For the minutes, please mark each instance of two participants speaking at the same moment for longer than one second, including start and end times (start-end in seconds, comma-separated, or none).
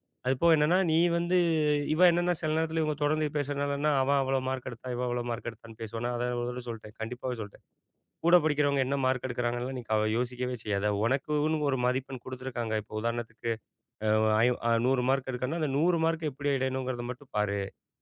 none